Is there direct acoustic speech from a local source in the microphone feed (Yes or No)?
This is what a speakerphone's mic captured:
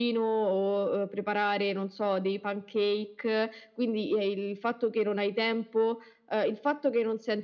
No